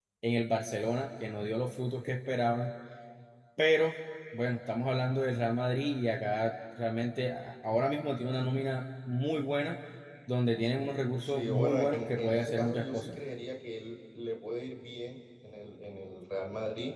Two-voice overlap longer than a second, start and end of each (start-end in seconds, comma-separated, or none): 11.2-13.2